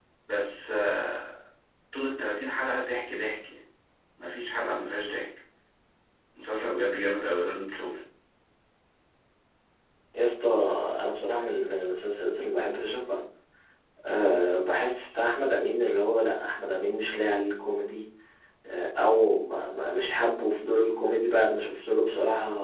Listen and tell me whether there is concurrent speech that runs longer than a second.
No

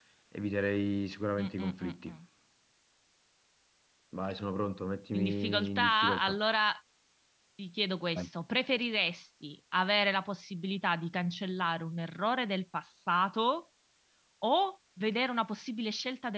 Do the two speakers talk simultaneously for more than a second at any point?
Yes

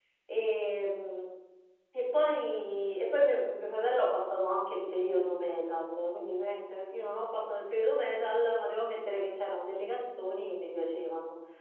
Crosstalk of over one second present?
No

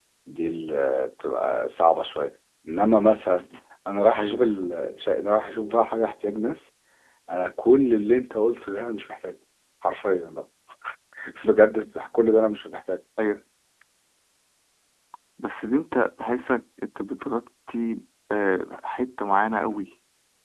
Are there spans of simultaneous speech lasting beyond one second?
No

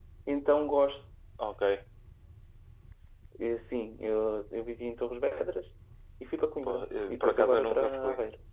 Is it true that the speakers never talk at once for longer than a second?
No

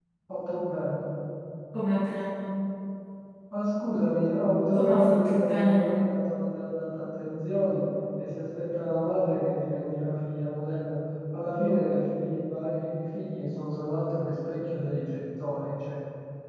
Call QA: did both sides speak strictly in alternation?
No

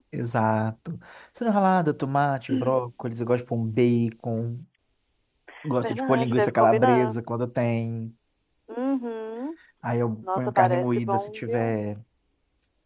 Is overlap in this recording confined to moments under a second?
No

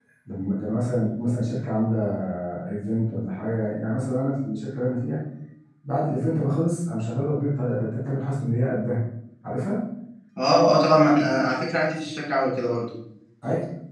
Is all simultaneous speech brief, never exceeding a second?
Yes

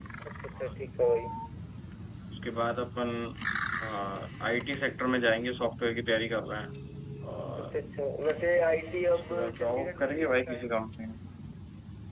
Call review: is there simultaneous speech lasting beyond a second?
Yes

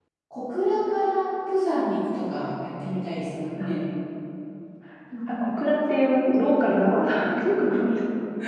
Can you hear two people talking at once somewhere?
No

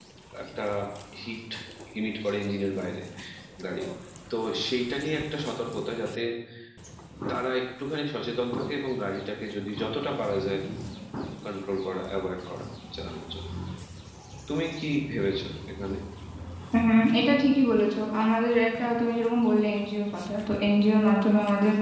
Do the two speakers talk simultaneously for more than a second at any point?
No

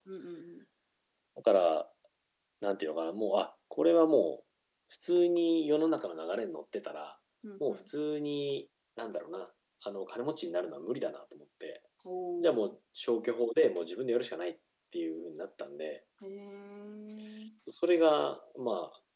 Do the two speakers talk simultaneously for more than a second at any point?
No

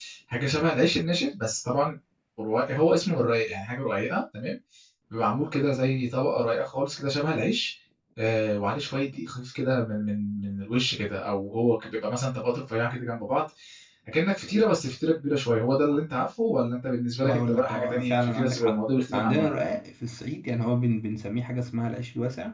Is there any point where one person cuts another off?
Yes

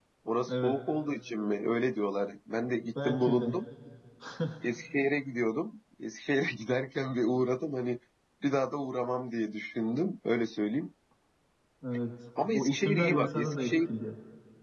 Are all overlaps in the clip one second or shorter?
No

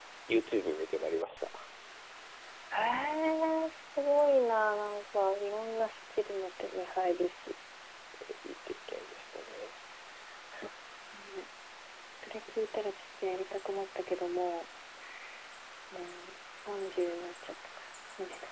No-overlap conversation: Yes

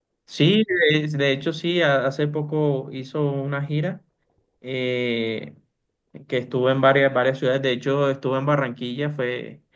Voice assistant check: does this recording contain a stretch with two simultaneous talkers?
No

